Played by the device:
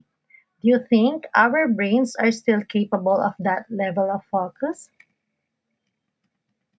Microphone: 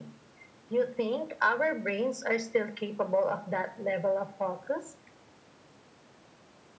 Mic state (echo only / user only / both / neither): echo only